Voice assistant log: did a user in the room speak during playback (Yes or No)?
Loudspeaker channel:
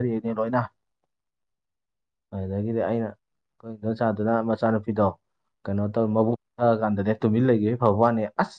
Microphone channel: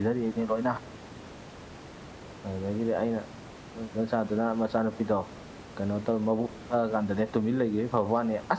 No